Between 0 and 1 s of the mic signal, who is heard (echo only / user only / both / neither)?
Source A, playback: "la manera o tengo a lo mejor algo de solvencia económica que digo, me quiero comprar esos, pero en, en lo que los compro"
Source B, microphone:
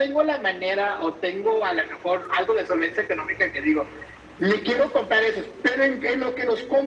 echo only